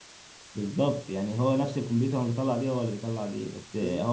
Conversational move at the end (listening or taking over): listening